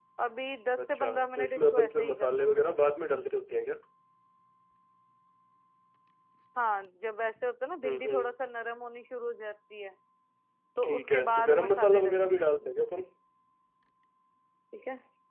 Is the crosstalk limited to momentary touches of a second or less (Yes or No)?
No